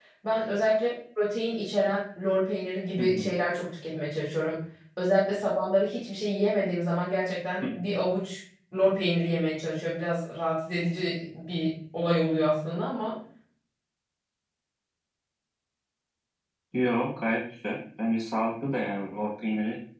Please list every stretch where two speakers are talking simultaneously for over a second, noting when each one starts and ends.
none

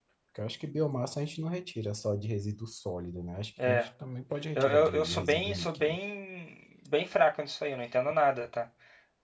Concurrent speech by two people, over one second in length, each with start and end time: 4.5-6.0

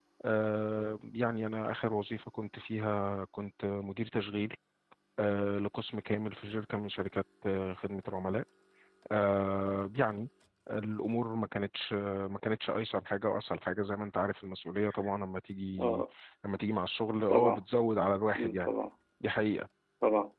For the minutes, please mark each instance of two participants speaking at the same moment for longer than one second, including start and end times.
none

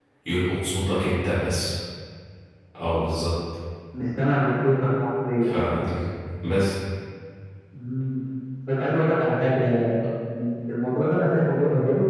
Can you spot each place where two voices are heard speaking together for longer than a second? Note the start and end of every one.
none

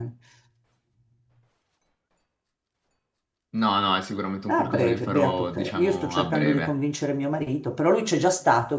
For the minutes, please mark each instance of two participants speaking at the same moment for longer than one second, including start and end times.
4.5-6.7

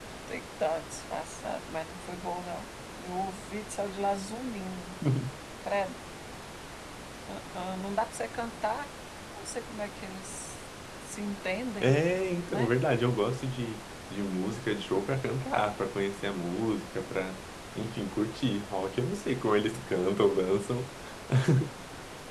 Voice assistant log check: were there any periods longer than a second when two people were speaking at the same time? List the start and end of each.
none

